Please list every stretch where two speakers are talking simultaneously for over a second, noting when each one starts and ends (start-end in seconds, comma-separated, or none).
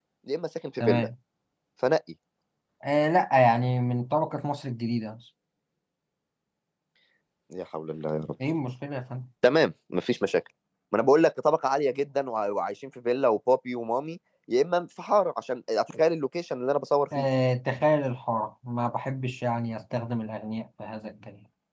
none